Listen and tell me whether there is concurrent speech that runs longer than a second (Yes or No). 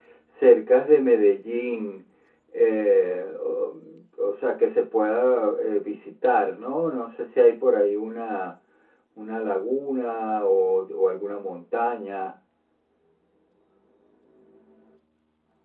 No